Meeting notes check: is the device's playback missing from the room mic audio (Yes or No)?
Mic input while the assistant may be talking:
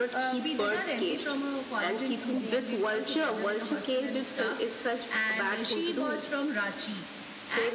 No